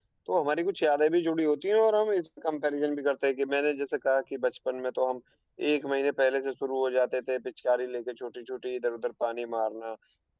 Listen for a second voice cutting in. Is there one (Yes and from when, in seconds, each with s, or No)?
No